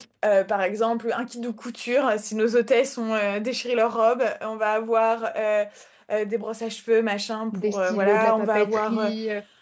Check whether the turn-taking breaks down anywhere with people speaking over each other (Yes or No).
Yes